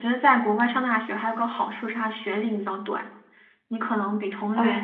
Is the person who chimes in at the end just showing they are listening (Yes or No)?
No